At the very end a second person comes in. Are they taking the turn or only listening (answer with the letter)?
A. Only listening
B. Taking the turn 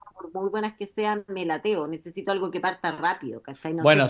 B